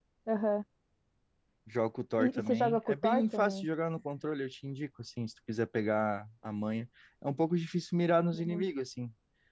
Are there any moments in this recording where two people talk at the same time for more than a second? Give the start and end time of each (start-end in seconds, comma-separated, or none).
2.2-3.7